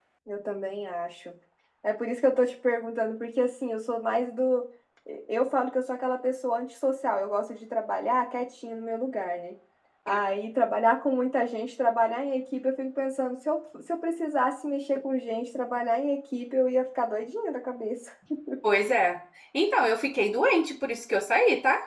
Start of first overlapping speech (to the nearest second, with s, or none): none